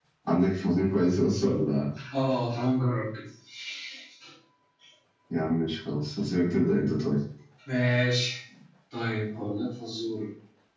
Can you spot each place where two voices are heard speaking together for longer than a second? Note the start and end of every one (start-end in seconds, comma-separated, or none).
none